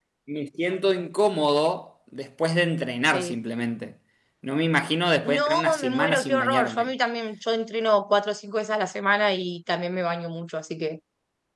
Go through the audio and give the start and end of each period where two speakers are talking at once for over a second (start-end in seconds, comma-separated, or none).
5.2-6.9